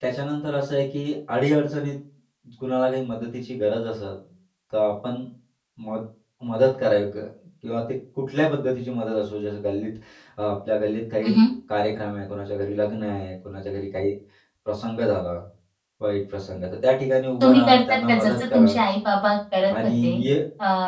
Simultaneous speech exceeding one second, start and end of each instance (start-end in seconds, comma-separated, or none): 17.4-18.7